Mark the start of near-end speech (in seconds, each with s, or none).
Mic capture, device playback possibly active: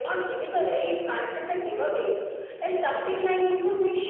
none